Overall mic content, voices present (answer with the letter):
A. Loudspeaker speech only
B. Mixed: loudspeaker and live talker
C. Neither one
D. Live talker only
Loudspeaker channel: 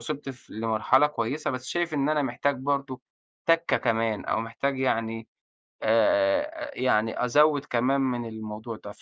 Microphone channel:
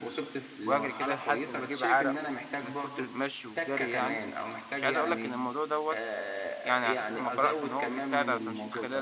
B